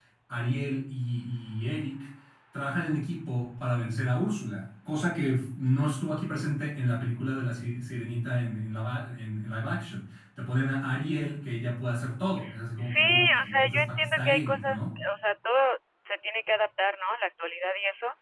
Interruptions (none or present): present